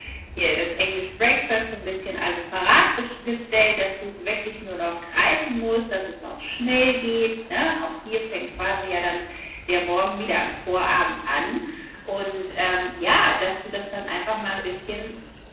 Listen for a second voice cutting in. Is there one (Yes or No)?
No